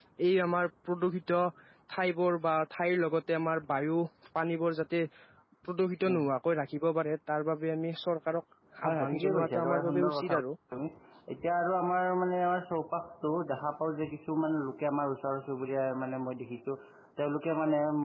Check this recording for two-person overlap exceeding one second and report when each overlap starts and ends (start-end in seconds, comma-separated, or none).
8.8-10.3